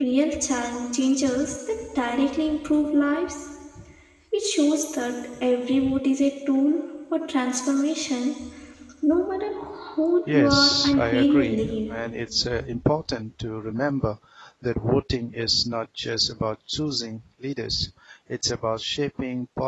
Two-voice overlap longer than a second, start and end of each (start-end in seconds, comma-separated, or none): 10.3-11.9